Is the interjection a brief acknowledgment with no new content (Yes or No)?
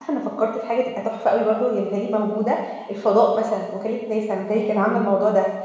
Yes